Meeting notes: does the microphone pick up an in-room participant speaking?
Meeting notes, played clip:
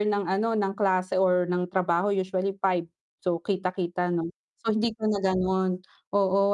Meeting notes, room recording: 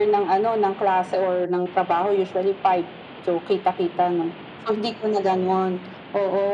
No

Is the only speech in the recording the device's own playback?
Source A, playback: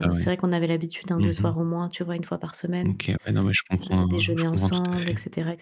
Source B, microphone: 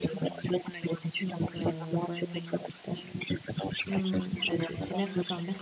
No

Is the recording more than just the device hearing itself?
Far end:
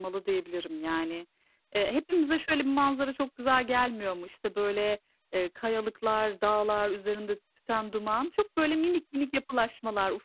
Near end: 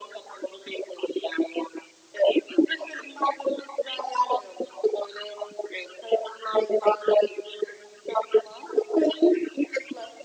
No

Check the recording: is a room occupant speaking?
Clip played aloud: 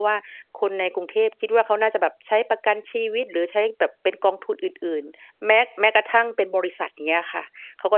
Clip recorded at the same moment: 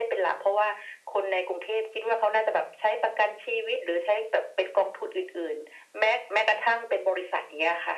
No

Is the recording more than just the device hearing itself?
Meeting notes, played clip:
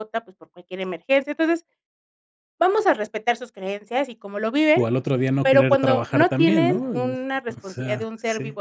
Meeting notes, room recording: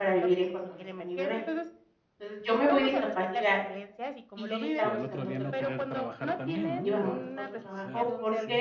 Yes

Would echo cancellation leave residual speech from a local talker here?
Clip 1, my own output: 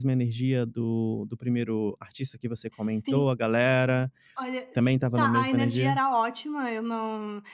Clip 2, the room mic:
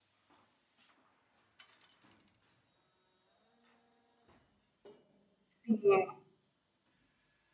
Yes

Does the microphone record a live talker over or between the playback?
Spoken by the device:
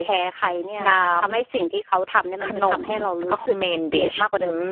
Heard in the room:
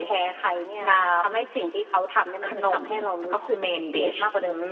No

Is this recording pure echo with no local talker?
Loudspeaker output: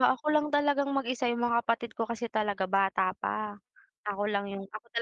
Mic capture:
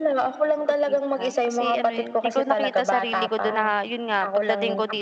No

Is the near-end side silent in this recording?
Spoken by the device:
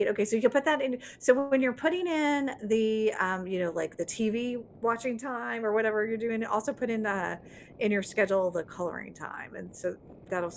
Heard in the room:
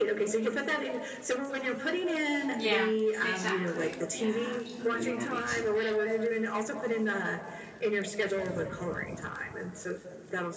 No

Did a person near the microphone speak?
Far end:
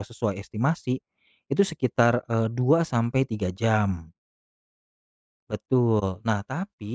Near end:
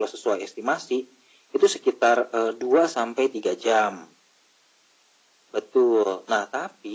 No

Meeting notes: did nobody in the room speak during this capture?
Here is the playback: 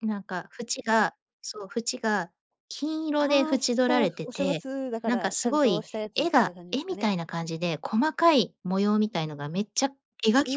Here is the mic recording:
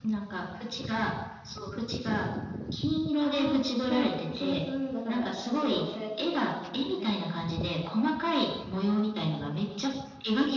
Yes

